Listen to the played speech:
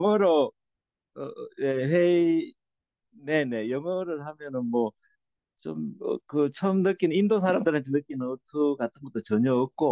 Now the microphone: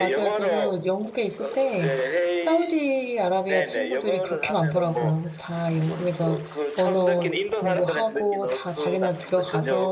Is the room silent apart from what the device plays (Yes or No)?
No